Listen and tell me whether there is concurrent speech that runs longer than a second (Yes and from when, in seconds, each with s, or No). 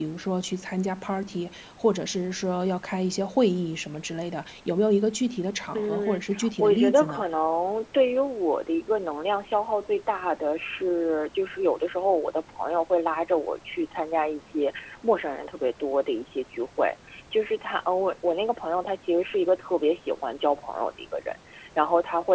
Yes, from 5.7 s